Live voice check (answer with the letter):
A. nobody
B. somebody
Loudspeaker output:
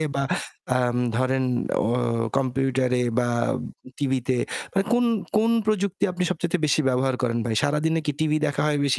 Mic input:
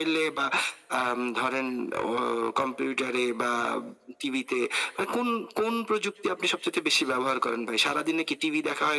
A